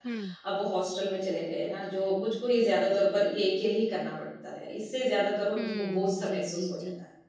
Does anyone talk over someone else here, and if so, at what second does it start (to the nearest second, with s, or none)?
6 s